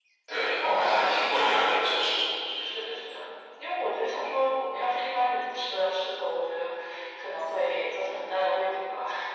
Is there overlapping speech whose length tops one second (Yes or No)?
Yes